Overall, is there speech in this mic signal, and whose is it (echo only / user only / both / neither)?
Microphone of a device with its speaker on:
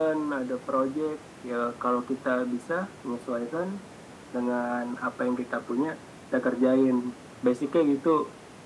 echo only